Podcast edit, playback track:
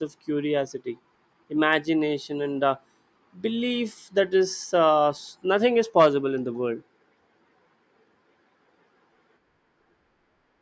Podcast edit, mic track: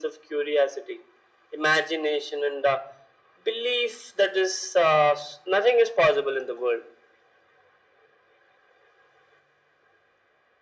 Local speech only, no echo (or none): none